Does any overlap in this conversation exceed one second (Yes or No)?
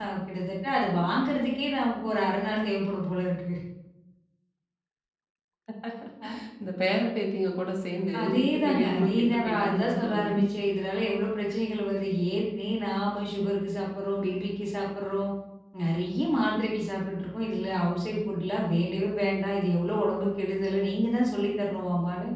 Yes